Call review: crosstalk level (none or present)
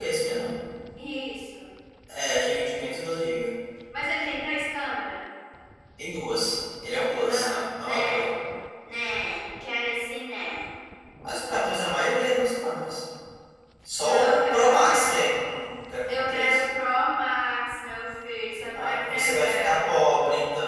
present